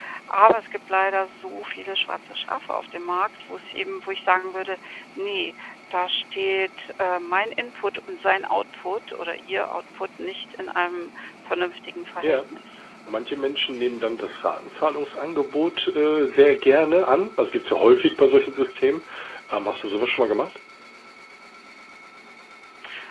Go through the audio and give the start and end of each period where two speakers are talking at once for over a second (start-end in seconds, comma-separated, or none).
none